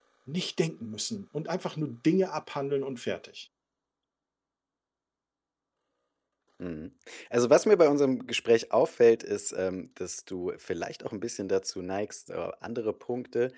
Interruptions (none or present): none